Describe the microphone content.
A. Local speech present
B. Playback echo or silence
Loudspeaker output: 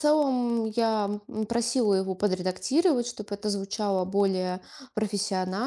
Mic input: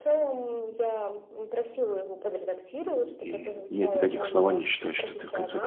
A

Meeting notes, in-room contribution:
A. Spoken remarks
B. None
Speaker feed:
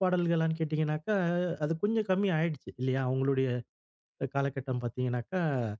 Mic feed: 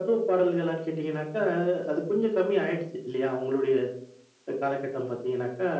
B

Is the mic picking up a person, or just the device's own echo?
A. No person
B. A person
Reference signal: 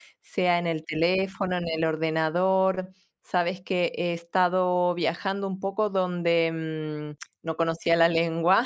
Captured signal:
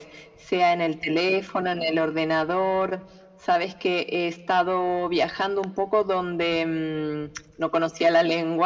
A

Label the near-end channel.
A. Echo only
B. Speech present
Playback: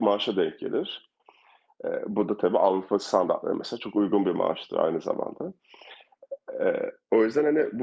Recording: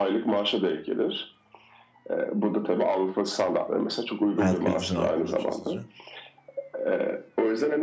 B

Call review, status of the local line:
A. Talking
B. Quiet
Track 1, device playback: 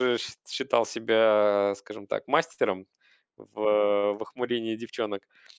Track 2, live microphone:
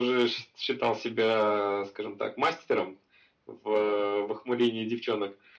B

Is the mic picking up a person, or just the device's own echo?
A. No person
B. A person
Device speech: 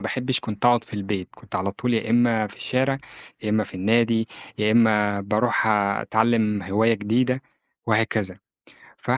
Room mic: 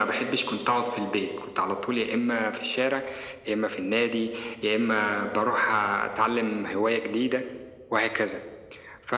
A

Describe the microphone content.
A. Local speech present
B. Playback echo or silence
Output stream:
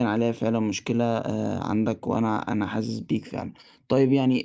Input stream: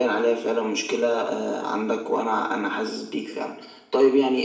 B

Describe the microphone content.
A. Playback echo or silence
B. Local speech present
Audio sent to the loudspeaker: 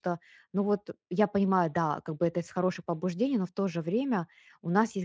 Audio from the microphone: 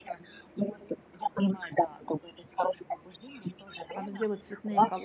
B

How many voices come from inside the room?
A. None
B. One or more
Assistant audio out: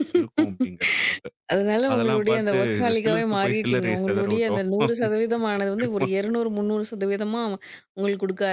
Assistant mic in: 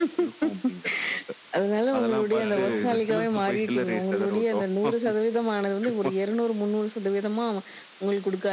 B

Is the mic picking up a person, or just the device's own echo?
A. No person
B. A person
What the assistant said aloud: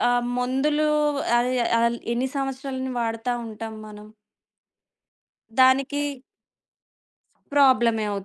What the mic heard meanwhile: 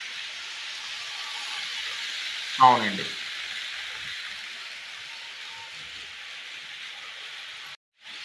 B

